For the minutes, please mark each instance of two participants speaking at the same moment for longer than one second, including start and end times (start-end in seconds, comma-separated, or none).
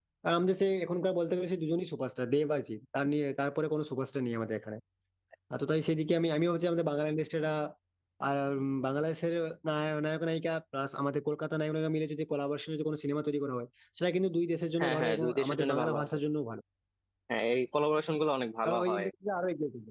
14.8-16.2